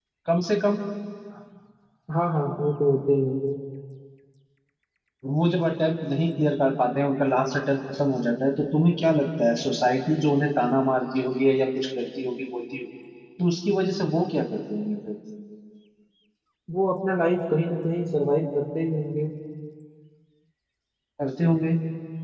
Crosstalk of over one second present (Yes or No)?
No